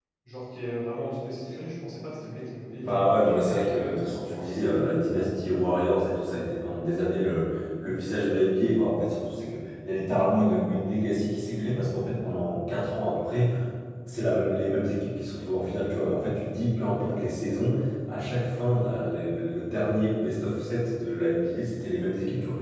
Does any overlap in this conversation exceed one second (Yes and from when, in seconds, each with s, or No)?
Yes, from 2.8 s